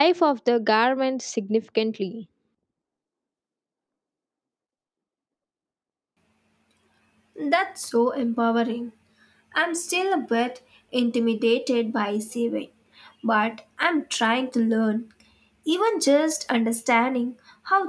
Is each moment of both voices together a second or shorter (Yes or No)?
Yes